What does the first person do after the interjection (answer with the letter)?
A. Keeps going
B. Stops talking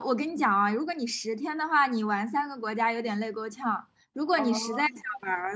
A